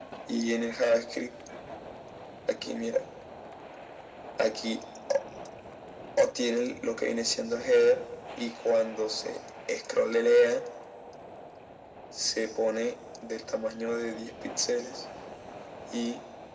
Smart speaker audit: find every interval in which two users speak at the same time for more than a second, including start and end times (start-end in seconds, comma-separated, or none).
none